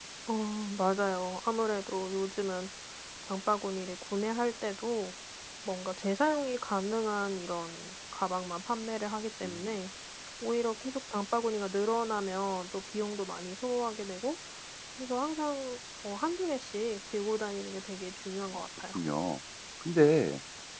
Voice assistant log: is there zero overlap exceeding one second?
Yes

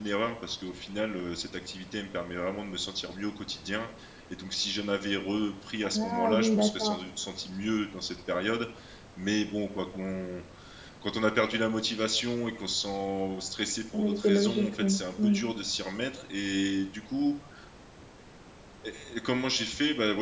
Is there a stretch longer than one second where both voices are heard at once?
Yes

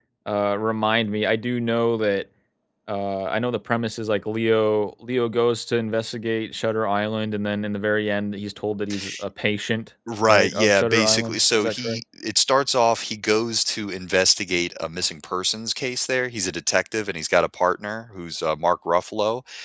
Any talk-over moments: Yes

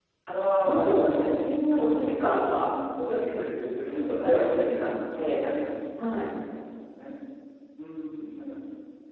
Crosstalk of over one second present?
Yes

